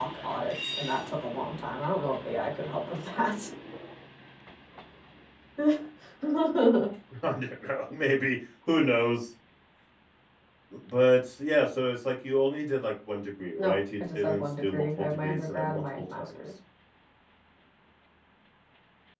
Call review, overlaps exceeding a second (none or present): present